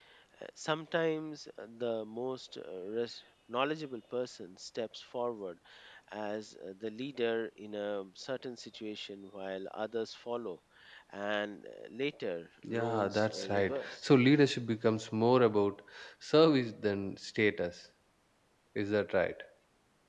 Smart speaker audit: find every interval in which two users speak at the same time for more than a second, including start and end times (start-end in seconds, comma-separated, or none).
12.7-14.1